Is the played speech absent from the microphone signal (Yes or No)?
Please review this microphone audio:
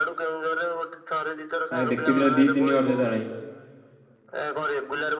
No